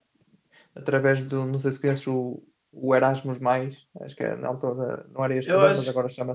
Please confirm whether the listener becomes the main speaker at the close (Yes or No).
Yes